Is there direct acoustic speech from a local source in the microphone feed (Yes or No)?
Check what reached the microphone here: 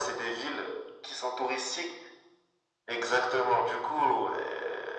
No